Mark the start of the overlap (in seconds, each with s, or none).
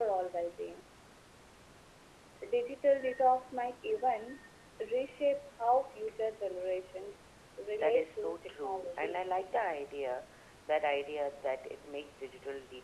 7.7 s